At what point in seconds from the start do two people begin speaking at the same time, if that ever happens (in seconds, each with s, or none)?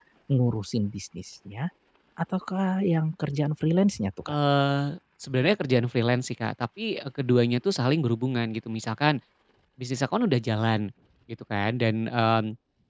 none